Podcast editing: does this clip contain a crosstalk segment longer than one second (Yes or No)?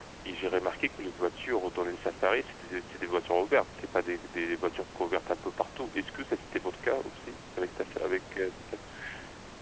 No